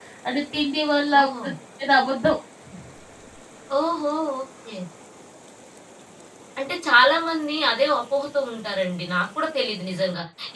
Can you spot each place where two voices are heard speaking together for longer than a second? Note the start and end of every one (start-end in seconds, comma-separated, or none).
none